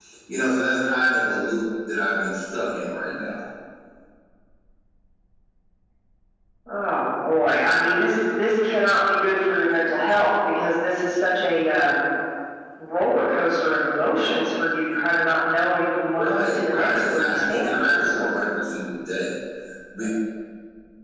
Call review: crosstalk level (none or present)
present